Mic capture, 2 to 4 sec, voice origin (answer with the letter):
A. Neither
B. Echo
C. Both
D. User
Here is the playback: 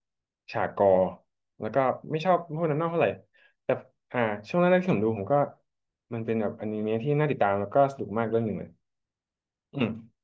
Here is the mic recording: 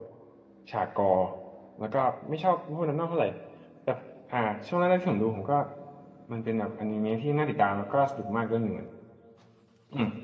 B